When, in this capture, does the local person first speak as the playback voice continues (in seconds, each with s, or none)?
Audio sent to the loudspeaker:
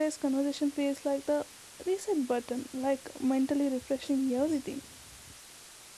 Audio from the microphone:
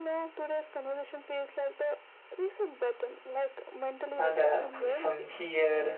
4.2 s